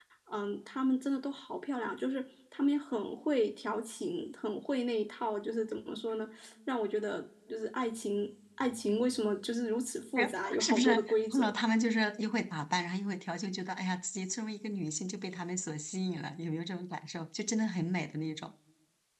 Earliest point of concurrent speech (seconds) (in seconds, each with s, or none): 10.2 s